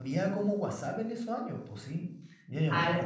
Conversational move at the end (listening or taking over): taking over